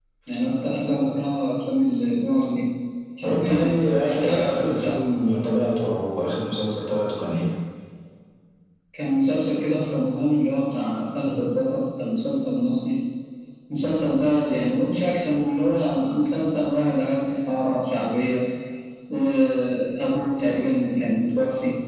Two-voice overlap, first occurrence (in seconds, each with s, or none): 3.2 s